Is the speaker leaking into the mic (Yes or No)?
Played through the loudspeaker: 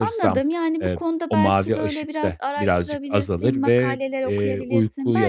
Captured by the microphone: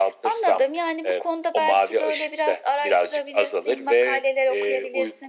Yes